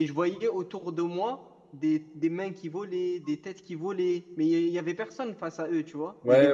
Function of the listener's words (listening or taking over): taking over